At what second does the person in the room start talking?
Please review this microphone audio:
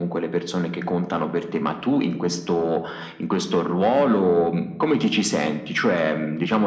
none

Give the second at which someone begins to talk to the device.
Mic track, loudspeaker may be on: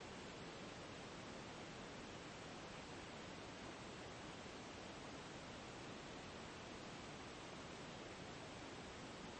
none

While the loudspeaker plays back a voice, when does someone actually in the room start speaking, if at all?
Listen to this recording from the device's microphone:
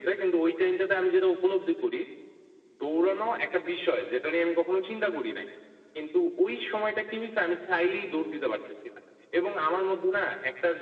none

